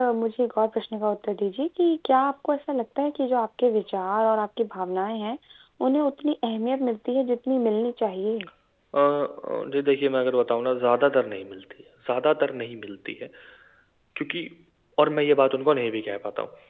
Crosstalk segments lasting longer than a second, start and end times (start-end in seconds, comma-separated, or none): none